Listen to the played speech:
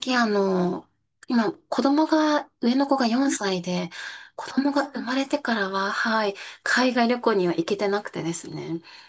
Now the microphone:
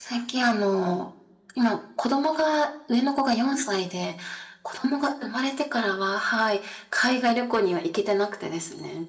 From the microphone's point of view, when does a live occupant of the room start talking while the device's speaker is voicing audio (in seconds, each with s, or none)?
none